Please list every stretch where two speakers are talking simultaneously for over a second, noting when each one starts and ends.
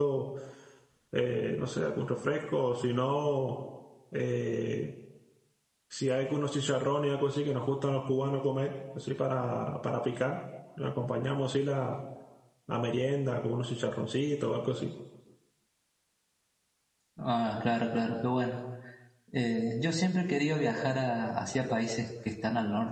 none

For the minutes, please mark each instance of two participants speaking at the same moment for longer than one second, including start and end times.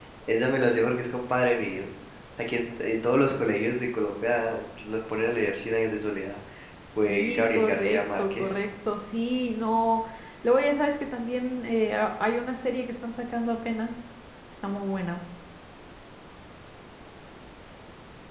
7.1-8.5

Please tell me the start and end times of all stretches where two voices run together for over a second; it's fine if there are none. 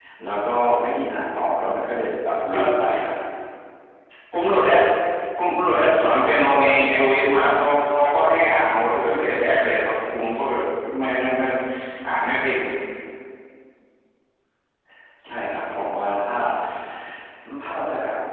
none

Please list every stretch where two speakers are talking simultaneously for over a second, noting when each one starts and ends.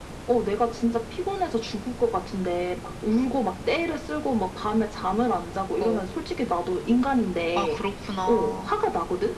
none

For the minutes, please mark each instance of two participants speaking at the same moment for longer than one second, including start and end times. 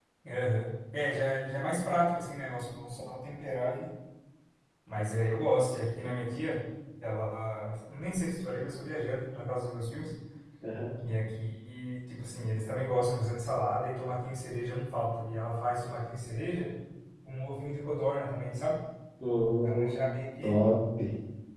none

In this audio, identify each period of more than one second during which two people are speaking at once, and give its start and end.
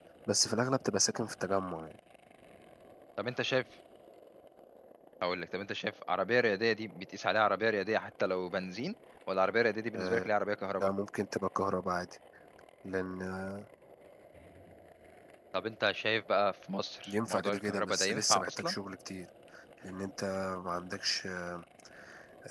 17.1-18.8

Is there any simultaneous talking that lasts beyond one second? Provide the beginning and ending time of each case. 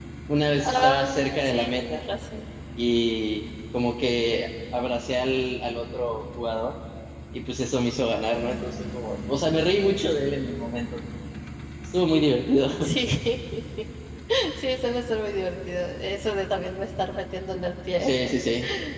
0.6-2.0

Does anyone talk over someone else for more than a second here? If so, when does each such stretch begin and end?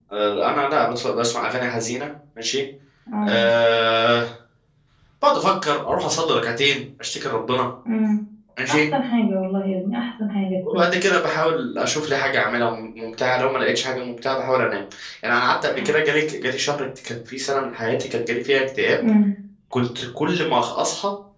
none

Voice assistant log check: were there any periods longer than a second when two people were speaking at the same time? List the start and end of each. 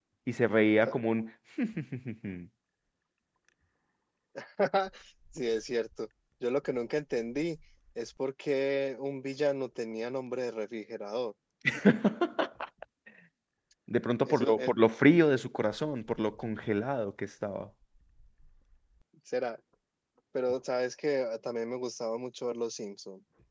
none

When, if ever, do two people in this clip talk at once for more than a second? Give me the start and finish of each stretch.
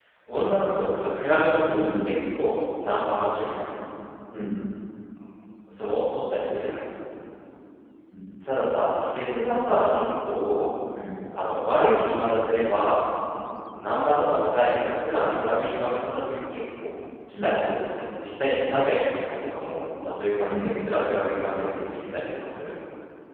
none

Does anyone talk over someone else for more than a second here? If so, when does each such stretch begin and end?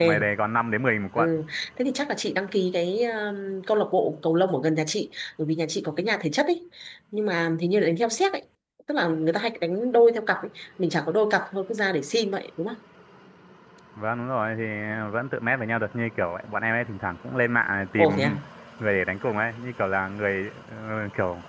none

